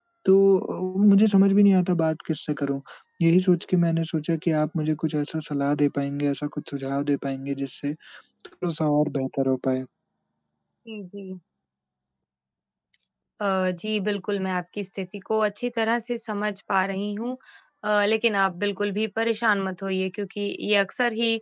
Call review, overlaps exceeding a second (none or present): none